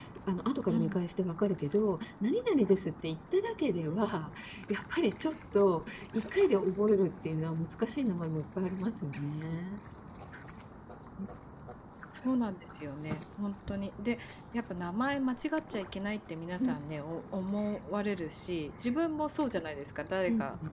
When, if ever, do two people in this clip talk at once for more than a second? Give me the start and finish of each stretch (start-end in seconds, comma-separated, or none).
none